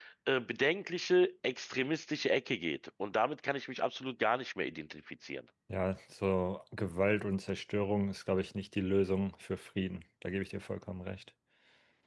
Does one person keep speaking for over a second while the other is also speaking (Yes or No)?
No